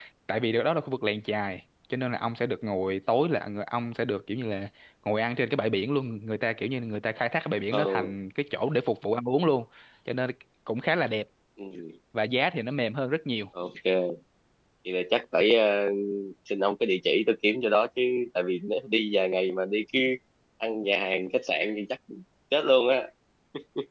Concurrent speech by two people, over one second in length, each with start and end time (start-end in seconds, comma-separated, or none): none